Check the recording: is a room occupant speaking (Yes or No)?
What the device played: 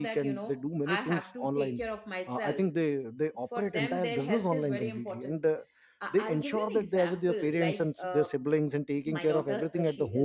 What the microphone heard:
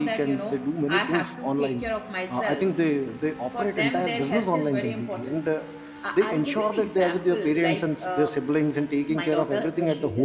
No